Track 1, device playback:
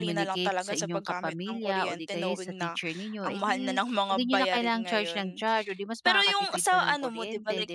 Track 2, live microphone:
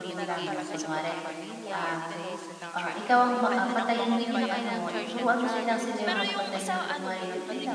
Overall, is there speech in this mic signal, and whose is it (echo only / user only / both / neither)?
both